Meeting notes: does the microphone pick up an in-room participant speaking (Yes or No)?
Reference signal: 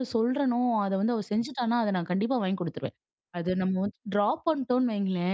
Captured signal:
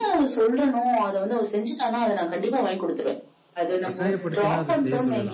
Yes